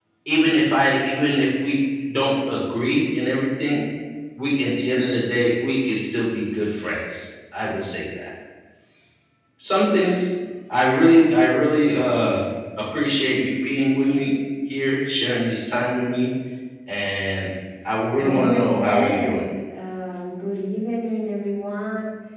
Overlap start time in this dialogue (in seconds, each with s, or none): 18.2 s